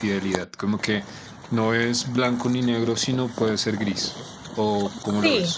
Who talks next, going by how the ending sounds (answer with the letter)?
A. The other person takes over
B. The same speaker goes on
A